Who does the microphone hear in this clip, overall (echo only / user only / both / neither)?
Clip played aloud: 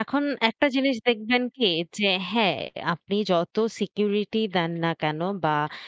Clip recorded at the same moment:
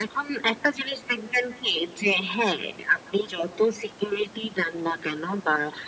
echo only